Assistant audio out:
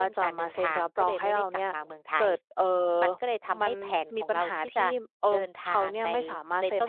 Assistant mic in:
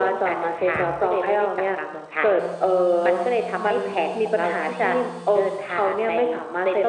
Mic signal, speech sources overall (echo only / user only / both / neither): echo only